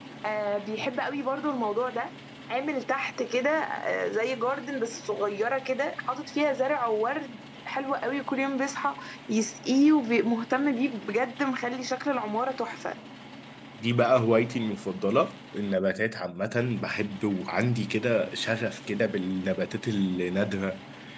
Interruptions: none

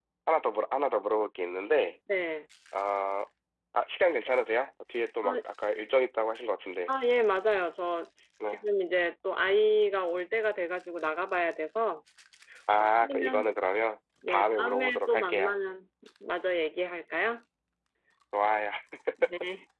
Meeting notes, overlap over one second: present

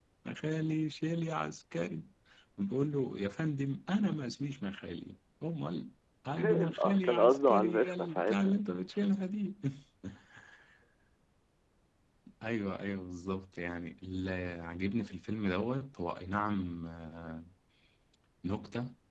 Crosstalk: present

